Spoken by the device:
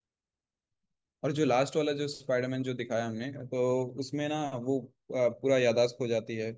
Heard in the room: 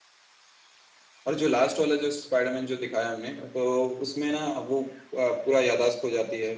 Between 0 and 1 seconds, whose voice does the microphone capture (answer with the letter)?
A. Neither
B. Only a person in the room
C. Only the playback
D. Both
A